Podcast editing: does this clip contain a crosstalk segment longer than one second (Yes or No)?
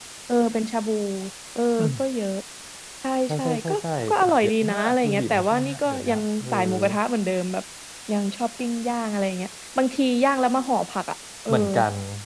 Yes